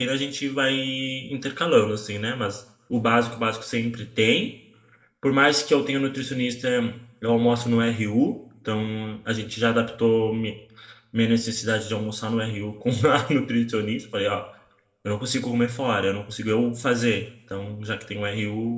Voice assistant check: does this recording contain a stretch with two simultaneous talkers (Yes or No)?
No